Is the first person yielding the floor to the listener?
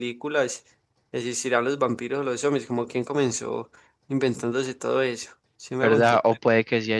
Yes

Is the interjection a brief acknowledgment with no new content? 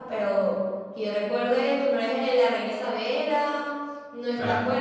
Yes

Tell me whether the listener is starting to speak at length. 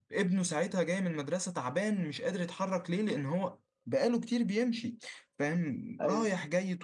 No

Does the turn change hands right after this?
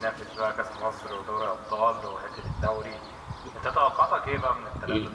No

